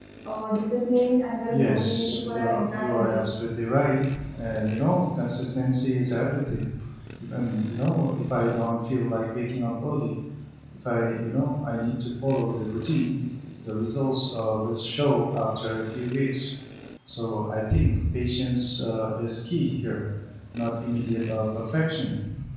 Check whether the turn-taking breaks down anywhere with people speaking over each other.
Yes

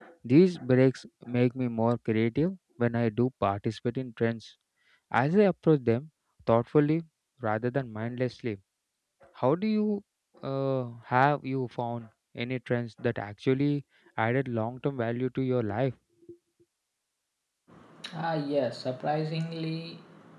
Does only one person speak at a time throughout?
Yes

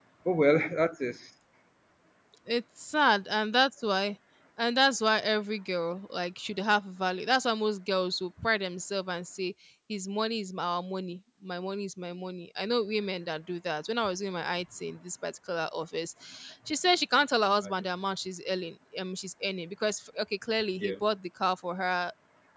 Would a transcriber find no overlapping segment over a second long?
Yes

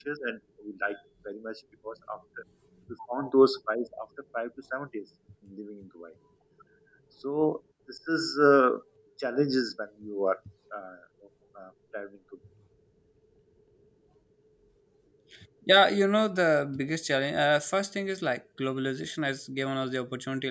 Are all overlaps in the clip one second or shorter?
Yes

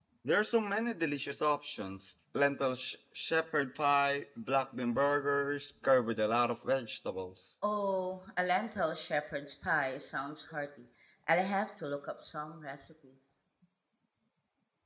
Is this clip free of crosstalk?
Yes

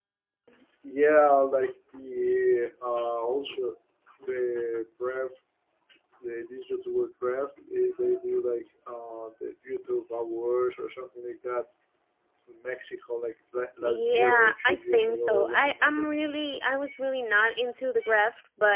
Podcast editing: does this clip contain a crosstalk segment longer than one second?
Yes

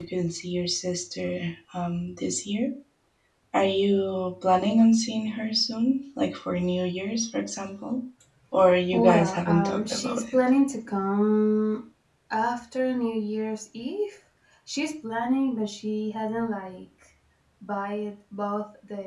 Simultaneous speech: Yes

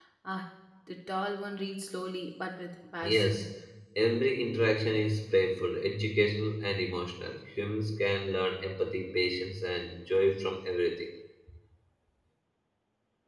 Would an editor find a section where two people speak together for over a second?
No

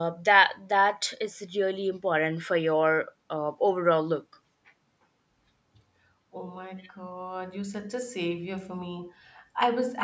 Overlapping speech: No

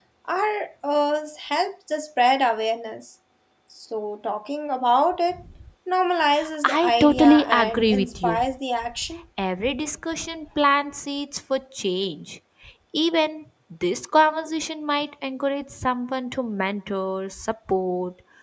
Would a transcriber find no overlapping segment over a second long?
No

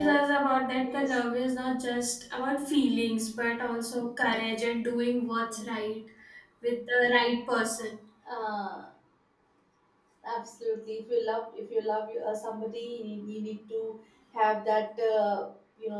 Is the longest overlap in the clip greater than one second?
No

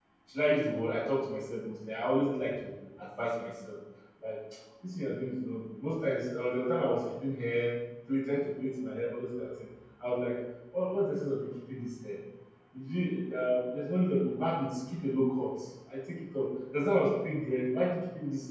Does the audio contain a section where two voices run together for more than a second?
No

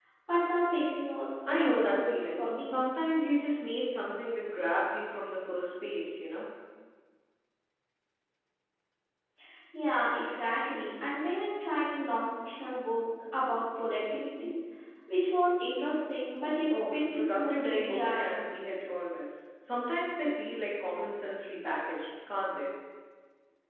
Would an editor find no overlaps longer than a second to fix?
No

